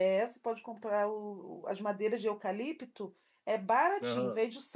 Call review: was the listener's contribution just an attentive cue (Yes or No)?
Yes